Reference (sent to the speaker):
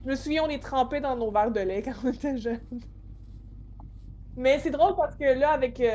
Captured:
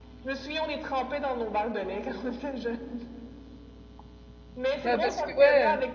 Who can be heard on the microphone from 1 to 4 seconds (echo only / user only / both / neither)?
echo only